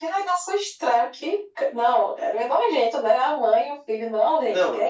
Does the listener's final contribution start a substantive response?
Yes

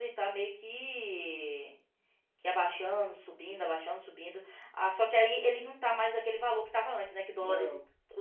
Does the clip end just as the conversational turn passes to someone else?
No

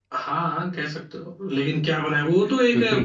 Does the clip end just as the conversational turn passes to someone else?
No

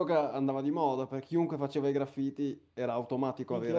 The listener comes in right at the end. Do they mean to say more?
Yes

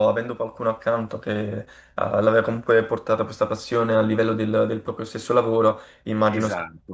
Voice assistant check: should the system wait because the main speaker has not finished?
No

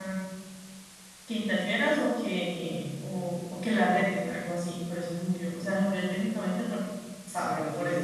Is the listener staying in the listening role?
No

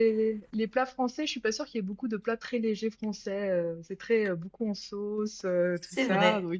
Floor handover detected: Yes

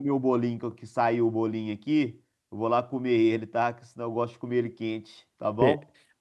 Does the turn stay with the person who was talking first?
No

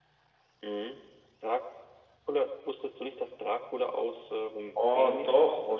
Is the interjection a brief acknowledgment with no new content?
No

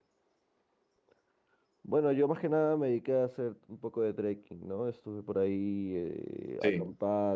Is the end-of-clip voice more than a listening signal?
No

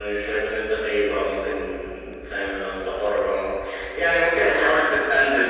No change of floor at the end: Yes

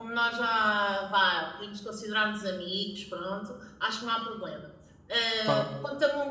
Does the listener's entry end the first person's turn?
No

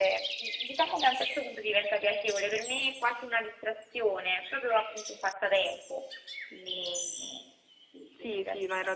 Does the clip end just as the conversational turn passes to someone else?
Yes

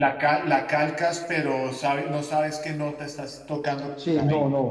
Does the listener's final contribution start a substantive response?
Yes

